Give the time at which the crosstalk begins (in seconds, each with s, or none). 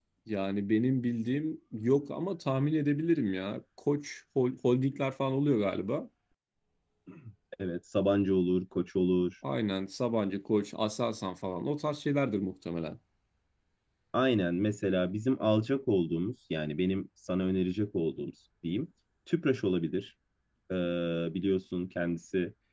none